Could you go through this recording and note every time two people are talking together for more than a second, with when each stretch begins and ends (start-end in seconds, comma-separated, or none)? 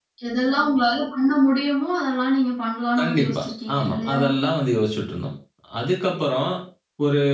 3.0-4.2